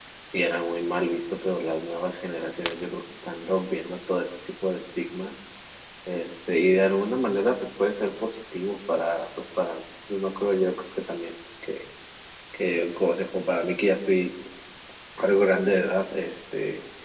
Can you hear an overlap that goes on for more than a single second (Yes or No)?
No